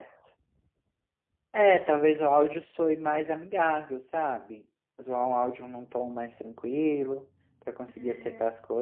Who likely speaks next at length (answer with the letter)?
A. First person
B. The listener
B